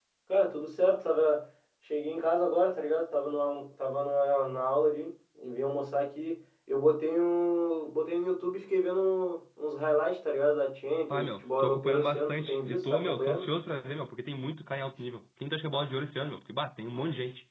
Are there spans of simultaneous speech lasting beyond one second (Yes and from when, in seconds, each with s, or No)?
Yes, from 11.1 s